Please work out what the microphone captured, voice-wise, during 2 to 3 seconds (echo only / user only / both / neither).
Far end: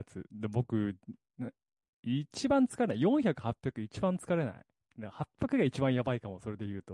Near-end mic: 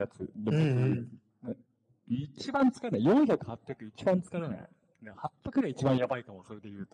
echo only